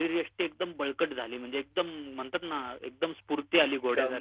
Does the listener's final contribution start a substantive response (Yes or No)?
Yes